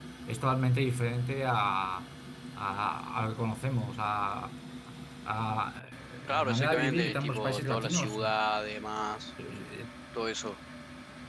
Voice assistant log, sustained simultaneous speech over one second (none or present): present